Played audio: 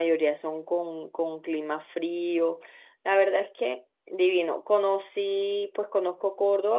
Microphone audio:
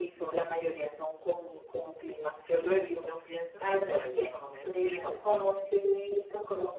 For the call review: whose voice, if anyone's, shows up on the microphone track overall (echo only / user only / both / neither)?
both